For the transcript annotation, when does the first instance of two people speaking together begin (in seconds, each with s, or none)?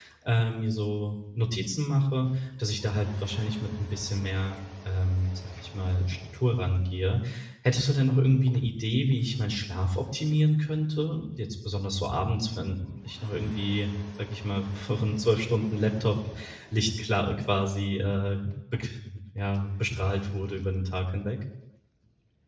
none